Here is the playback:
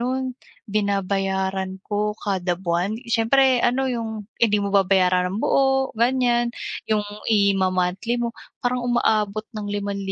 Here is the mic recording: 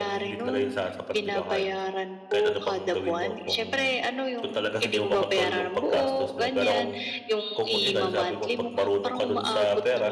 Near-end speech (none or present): present